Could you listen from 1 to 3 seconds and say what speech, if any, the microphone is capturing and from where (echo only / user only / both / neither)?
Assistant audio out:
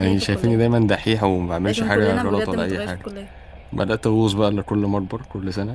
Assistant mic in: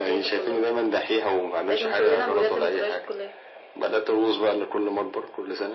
echo only